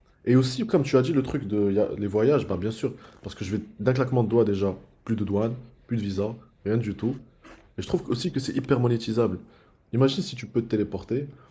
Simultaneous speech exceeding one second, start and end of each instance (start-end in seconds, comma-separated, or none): none